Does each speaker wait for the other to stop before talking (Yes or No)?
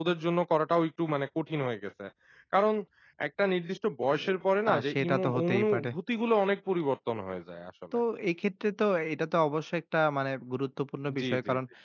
No